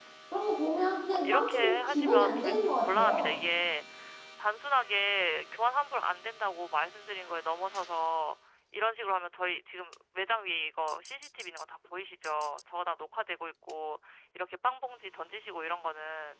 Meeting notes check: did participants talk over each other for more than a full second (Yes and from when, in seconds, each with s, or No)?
Yes, from 1.2 s